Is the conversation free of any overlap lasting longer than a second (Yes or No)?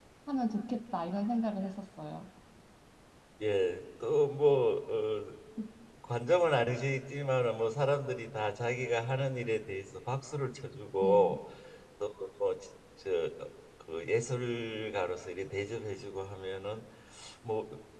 Yes